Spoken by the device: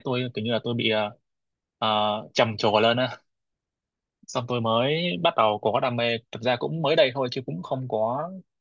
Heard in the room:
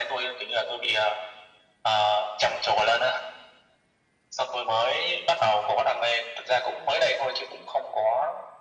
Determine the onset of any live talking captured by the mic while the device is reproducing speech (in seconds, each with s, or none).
none